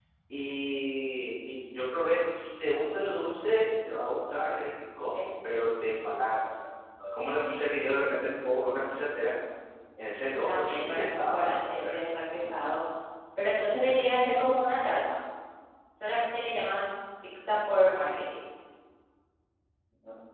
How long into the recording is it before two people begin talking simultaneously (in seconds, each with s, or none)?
10.2 s